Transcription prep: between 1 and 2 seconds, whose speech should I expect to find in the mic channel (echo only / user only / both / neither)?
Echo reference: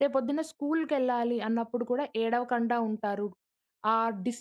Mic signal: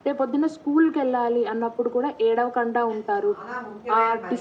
echo only